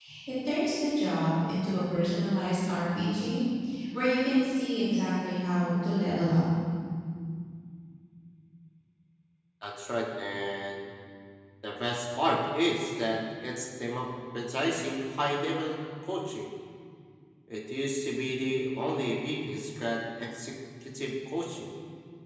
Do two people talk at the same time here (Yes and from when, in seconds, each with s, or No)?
No